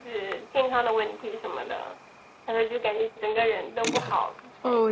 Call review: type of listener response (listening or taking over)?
taking over